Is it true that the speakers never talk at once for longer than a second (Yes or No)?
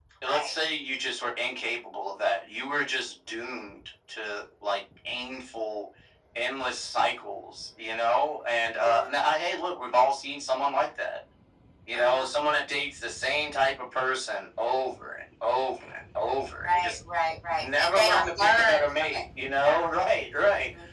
No